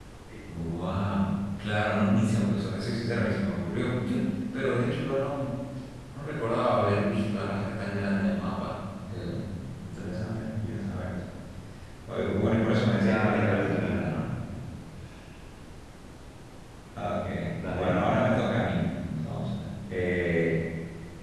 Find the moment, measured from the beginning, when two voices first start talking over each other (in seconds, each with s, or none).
13.0 s